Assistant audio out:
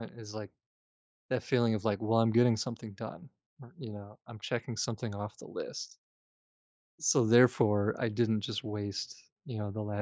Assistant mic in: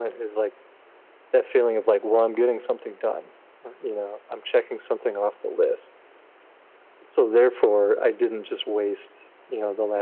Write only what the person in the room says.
none

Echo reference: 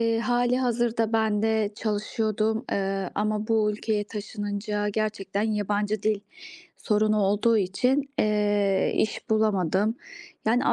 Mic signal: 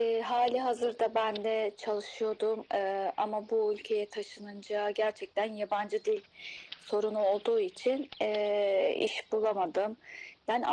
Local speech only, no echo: none

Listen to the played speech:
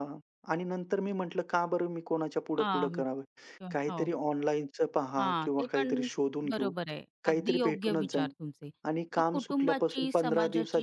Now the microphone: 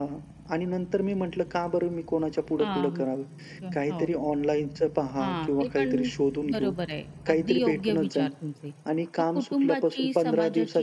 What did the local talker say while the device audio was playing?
none

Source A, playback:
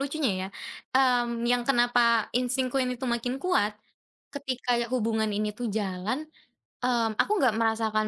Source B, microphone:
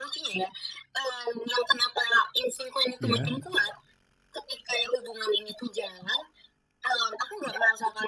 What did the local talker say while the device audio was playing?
Iya.

